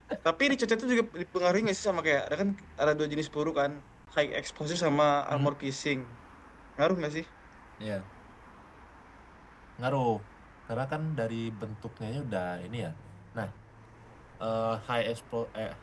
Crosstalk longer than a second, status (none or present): none